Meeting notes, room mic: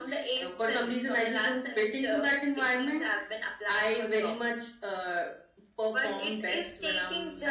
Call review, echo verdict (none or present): present